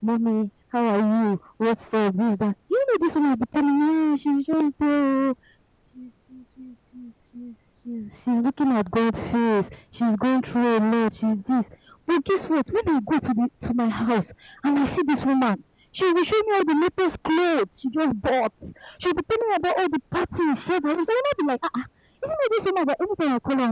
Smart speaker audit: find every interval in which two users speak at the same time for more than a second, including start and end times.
none

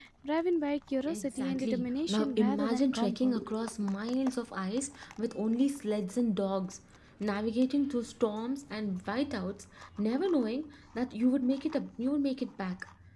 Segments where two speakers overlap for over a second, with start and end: 1.1-3.4

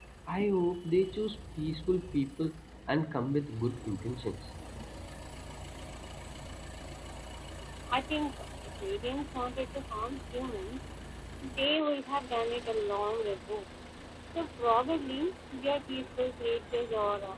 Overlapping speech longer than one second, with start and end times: none

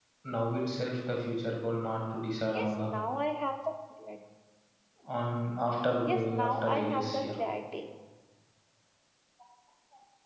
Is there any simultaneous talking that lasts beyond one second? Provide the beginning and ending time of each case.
6.0-7.4

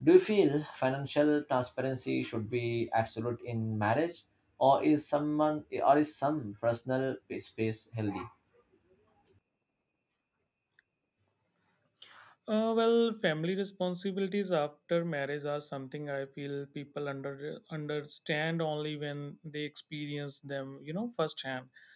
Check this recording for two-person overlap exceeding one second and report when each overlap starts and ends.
none

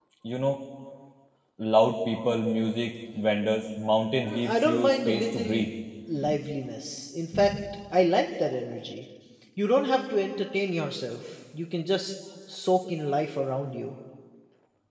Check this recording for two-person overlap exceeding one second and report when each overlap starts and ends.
4.2-5.6

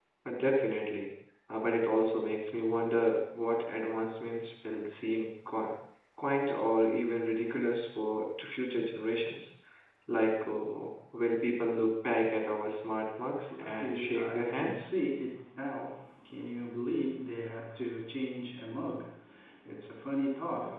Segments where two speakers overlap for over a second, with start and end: 13.5-14.9

